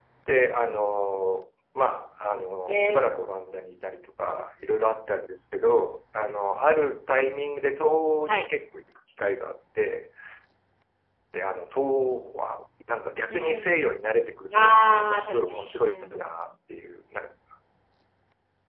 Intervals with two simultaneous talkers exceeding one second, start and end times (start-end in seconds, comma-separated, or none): 14.5-16.4